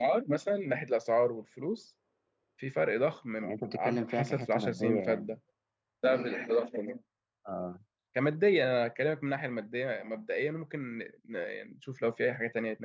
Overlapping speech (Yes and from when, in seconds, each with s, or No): Yes, from 3.4 s